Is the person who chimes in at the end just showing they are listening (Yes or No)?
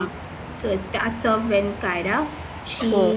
Yes